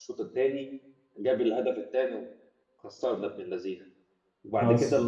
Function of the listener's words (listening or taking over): listening